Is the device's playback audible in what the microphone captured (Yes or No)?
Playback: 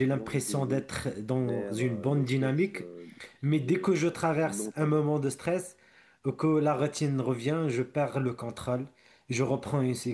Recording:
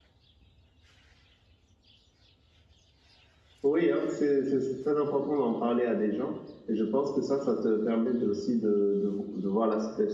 No